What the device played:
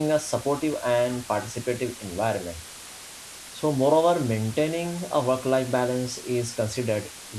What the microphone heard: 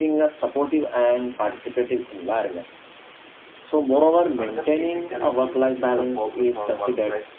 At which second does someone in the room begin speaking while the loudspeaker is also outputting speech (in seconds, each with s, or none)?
4.4 s